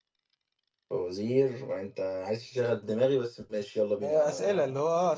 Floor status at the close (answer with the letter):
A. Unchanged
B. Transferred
B